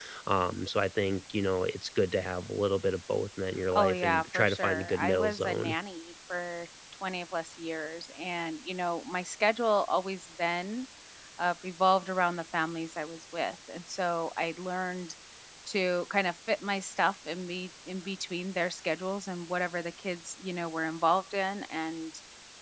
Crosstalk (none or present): present